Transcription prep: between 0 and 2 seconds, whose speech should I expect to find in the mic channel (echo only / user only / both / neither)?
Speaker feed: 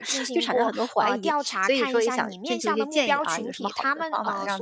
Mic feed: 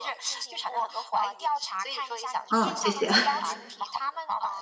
echo only